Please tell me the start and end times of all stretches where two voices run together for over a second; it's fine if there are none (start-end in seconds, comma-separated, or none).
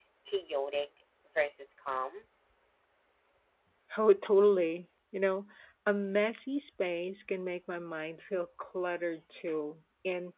none